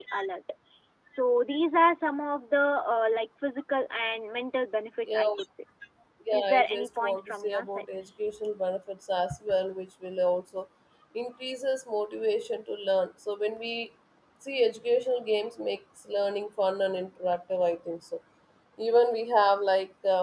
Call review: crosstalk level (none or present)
present